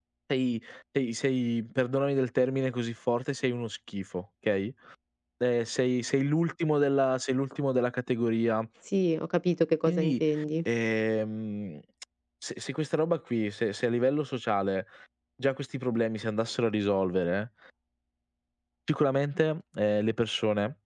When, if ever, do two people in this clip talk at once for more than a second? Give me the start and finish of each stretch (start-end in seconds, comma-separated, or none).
none